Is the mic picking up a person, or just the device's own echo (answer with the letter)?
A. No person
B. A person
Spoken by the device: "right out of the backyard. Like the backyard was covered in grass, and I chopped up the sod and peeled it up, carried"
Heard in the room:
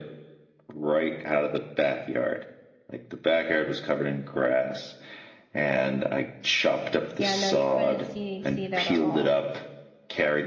B